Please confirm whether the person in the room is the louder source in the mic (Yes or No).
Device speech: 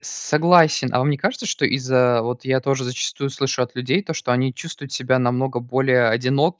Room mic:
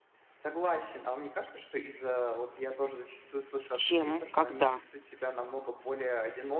Yes